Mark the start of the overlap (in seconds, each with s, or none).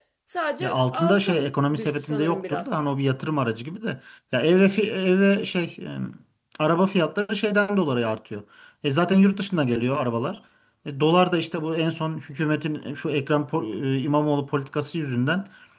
0.6 s